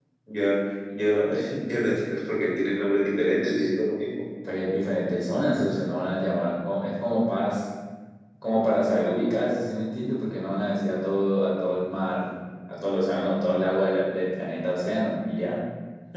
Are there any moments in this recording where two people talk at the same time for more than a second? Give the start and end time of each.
none

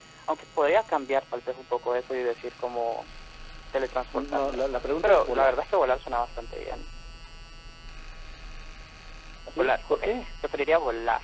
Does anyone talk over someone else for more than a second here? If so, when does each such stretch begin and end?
none

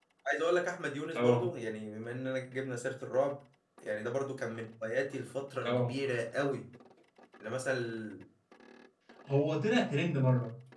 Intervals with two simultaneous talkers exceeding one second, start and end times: none

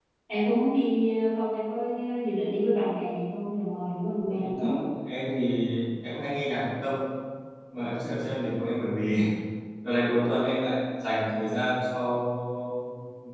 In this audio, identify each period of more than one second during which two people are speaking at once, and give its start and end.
none

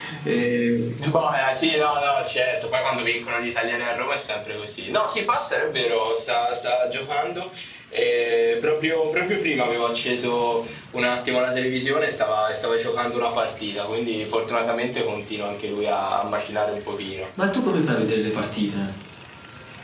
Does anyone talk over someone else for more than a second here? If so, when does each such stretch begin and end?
none

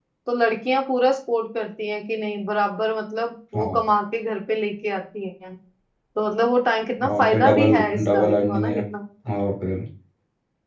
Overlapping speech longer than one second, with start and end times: 7.2-8.8

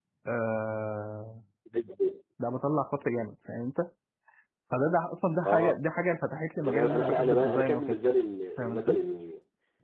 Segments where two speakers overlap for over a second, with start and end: 6.6-8.0

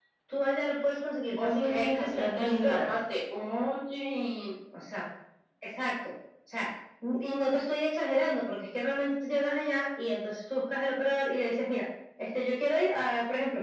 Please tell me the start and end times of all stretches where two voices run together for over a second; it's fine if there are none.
1.4-2.9

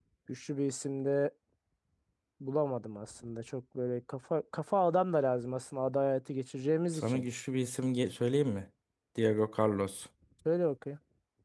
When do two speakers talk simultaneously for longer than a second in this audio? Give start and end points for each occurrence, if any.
none

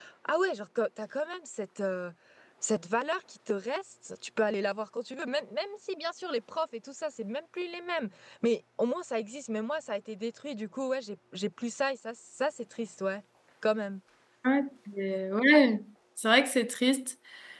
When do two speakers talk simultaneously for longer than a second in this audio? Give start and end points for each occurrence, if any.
none

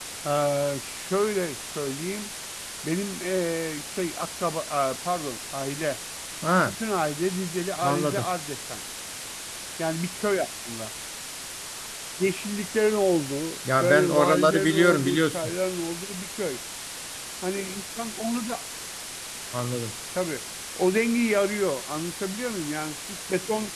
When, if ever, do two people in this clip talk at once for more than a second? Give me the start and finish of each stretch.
13.8-15.5

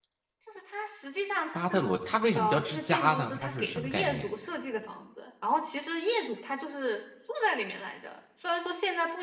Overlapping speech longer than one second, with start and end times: 2.3-4.3

